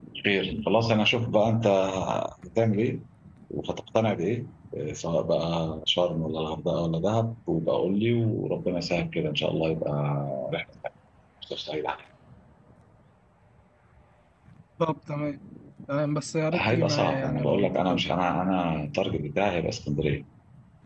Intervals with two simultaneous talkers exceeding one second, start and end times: 16.5-18.1

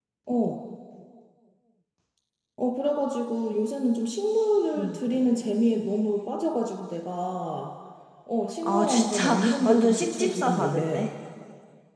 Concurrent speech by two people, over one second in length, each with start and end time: 8.6-11.0

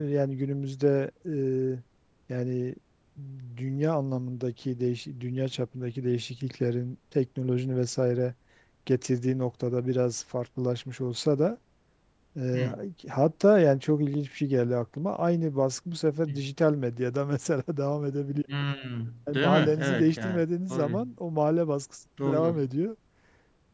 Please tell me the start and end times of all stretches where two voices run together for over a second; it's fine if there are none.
19.3-21.0

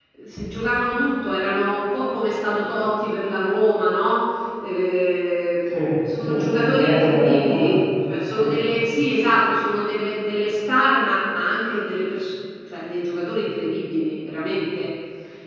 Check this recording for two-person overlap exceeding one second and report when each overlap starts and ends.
6.2-7.8

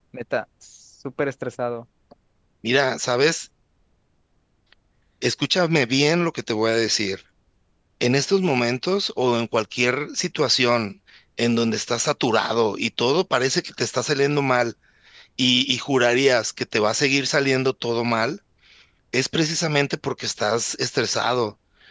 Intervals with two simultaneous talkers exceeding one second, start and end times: none

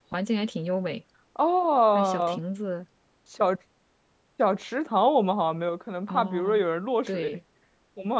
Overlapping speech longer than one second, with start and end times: none

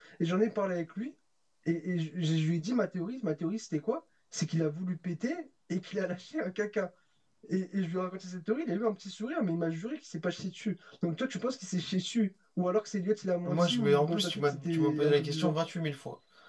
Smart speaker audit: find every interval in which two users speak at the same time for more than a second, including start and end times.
13.4-15.5

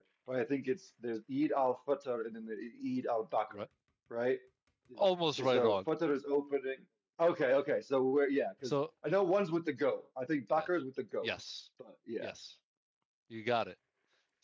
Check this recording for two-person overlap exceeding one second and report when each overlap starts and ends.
none

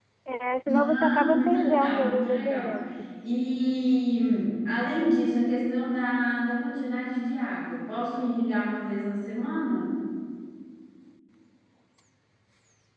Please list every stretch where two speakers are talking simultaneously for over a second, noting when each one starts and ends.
0.7-2.8

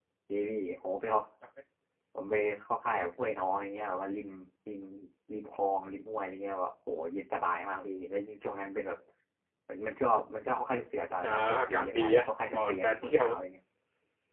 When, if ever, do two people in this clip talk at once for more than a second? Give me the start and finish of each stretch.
11.2-13.3

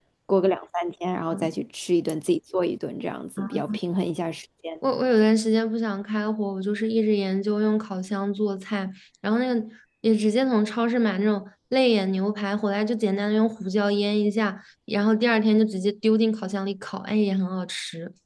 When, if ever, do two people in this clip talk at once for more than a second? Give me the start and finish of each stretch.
none

